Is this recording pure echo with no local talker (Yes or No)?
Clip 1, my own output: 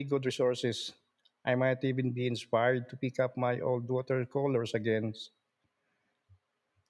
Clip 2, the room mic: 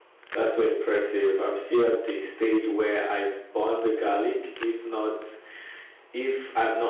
No